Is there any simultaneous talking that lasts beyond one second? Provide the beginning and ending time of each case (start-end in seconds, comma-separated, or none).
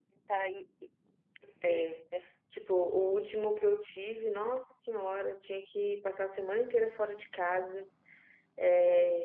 none